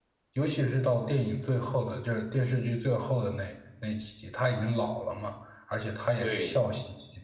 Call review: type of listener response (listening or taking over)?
listening